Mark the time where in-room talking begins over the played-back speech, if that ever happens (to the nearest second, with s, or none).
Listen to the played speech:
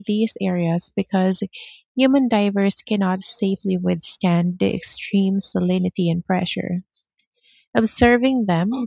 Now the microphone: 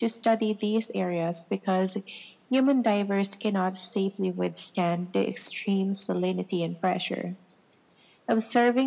none